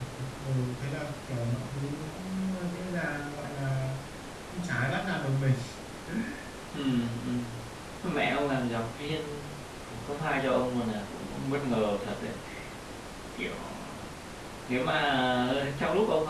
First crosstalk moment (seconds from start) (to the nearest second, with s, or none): none